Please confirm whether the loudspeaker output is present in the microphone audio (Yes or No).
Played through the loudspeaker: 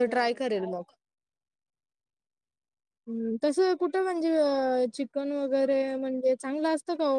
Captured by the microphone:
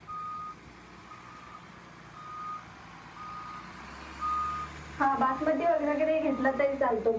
No